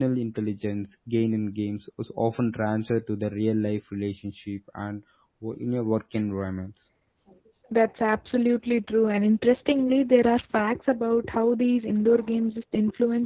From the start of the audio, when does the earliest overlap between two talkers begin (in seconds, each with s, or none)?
none